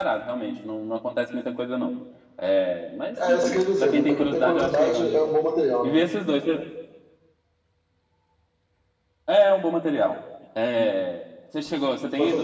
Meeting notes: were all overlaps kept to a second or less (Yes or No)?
No